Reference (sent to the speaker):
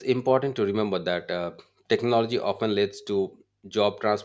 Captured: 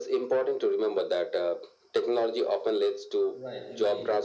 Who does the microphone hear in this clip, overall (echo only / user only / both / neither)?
both